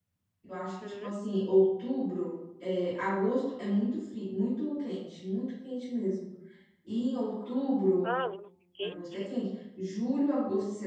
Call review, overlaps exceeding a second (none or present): none